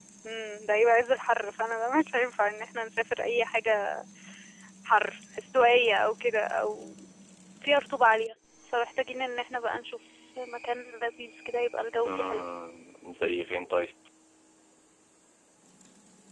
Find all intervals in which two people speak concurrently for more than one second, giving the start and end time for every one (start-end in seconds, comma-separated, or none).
none